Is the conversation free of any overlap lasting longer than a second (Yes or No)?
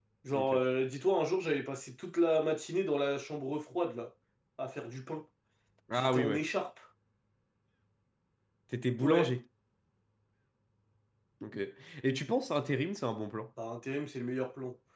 Yes